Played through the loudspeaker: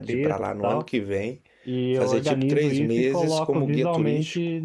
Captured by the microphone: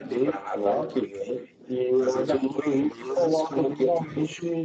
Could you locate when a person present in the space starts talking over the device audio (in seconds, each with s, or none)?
none